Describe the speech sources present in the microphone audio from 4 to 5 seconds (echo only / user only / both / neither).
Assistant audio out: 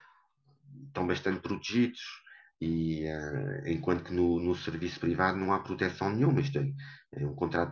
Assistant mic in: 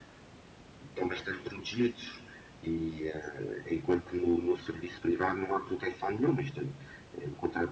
echo only